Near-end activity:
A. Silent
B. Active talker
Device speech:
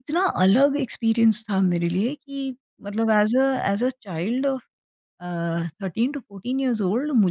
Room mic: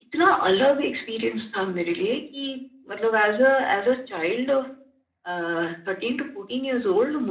A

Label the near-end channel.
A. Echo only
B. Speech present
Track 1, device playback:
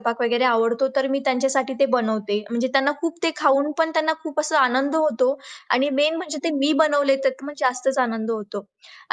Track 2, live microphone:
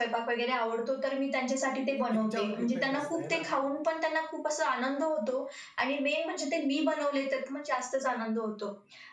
B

